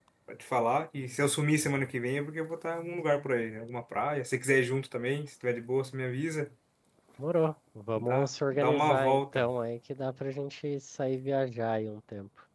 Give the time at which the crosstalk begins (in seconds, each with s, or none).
8.0 s